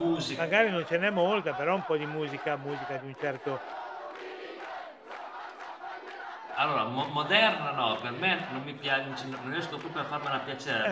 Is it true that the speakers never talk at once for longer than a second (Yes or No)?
Yes